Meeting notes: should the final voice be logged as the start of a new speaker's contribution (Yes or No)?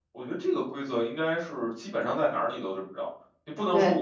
No